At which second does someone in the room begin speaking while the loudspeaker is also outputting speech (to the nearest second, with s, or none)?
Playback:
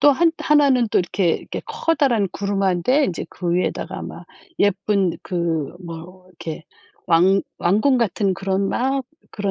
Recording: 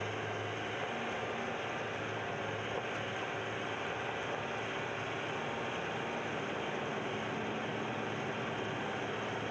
none